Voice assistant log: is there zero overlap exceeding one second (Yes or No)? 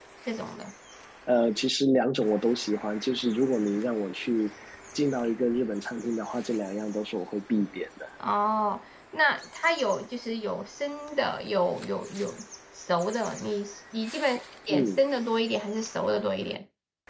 Yes